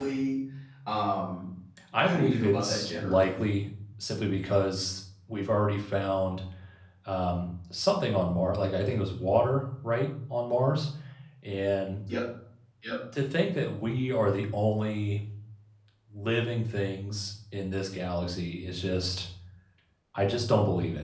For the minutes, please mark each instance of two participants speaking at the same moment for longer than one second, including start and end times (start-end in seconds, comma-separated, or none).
2.0-3.4